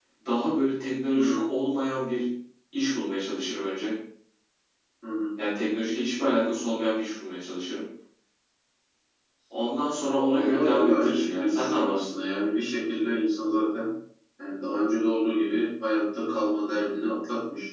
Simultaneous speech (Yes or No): Yes